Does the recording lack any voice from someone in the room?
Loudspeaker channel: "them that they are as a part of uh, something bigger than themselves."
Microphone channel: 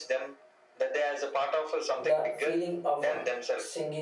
No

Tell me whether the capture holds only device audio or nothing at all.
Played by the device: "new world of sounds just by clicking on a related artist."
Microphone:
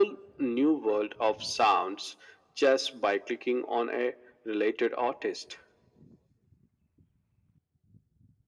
Yes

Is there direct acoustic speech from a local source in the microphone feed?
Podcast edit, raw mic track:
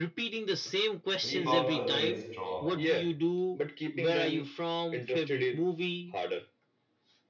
Yes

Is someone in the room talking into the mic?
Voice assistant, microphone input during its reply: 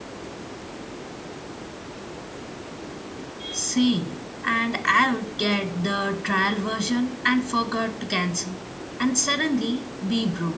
No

